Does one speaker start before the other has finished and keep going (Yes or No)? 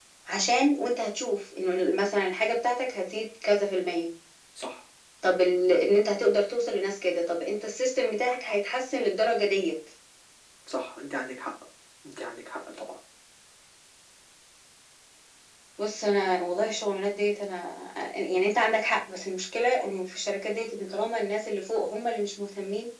No